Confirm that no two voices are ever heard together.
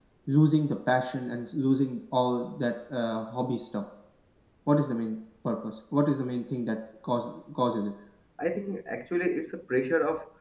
Yes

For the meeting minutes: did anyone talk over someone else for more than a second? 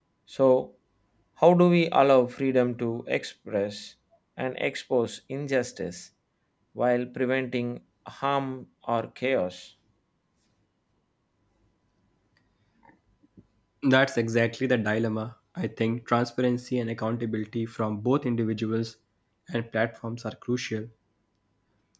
No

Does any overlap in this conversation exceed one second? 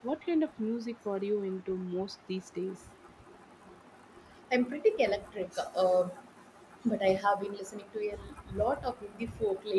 No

